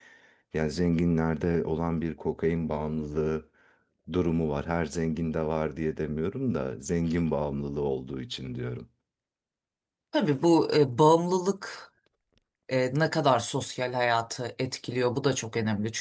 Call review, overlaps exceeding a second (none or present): none